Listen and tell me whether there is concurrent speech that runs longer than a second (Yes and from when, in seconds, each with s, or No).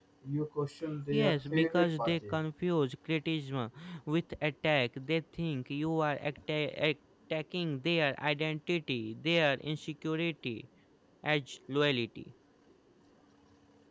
Yes, from 1.1 s